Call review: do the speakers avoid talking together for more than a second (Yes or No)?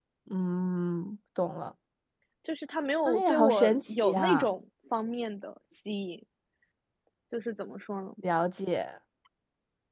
No